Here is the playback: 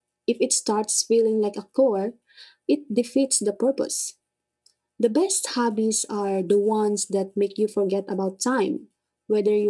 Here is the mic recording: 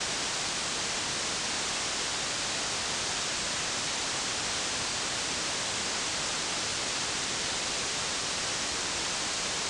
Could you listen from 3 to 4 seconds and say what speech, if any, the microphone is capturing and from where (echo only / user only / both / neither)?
neither